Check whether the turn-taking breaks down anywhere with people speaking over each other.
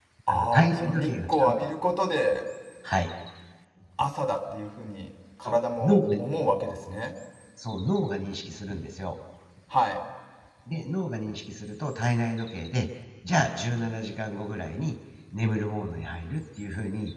Yes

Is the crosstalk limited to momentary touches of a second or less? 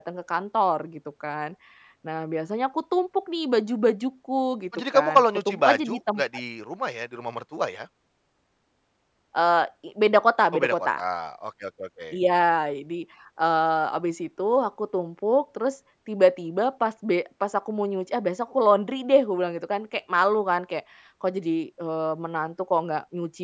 No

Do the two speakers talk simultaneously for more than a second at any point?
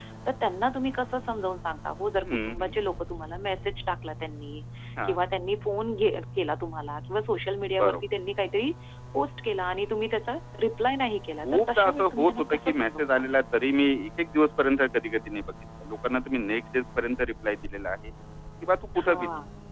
Yes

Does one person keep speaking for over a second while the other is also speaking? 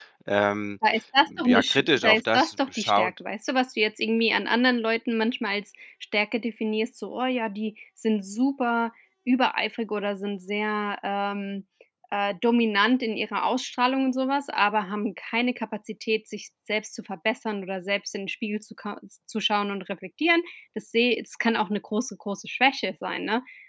Yes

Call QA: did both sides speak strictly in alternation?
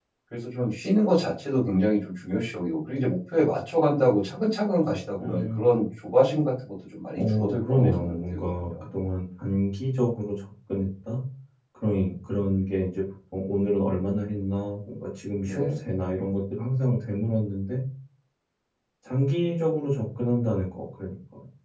No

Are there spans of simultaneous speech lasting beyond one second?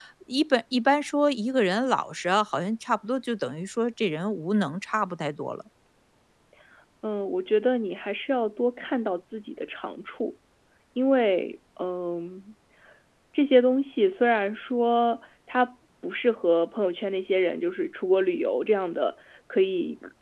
No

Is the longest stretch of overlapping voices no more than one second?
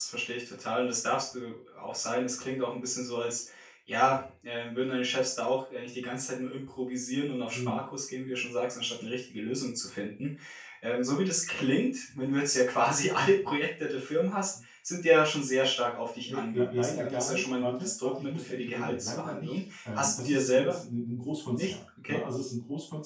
No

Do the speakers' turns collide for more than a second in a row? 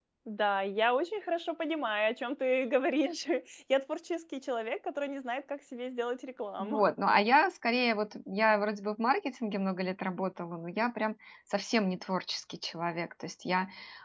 No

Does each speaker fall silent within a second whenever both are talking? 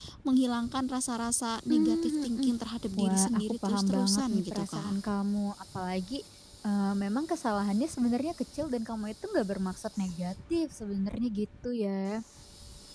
No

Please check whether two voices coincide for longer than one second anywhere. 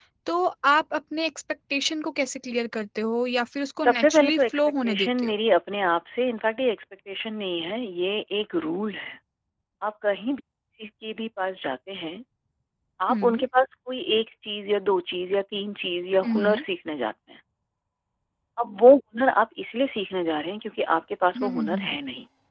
Yes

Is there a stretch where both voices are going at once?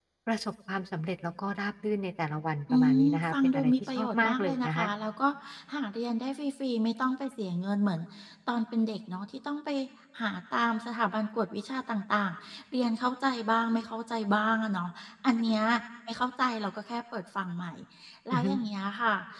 Yes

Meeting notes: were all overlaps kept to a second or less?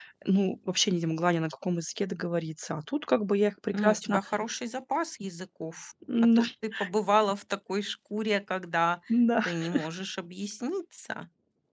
Yes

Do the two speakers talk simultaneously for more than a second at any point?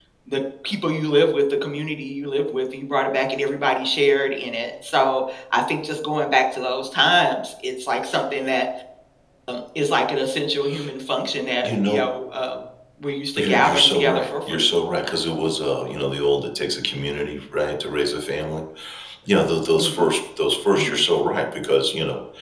Yes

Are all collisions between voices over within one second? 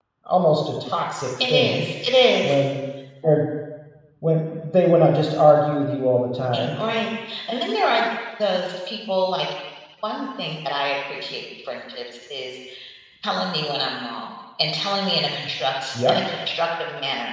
Yes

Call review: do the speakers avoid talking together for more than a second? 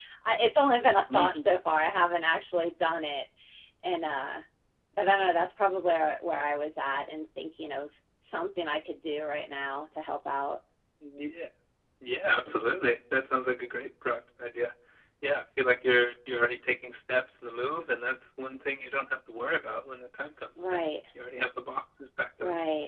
Yes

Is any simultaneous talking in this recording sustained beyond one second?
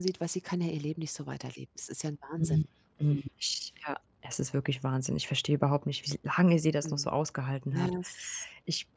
No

